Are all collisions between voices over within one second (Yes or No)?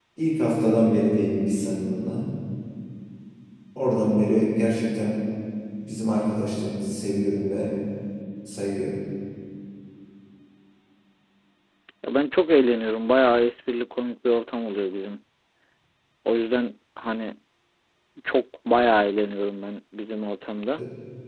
Yes